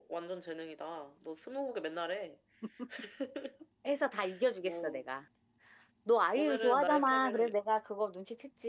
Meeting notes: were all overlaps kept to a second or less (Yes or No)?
No